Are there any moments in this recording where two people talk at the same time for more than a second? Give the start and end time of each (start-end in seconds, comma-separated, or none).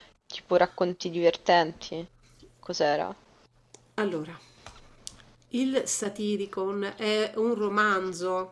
none